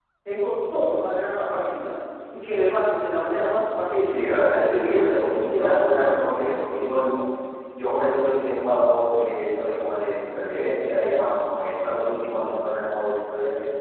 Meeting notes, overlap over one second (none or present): present